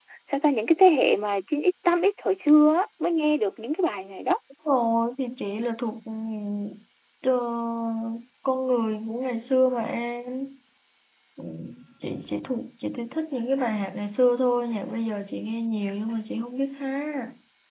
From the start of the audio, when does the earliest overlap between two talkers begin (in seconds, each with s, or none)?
none